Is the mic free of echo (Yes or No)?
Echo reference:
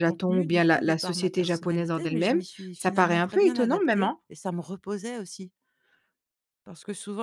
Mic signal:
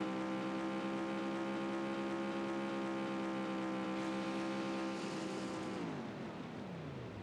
Yes